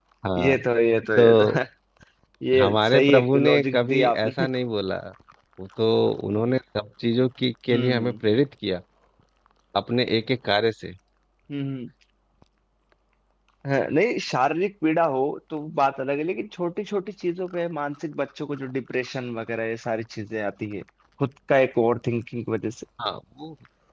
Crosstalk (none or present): present